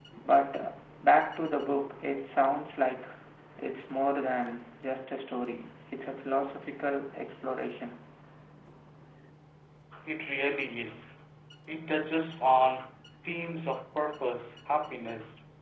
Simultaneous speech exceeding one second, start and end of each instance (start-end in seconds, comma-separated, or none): none